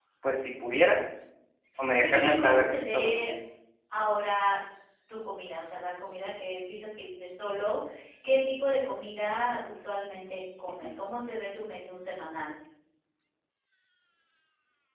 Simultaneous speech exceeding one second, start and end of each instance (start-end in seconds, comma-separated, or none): 2.0-3.3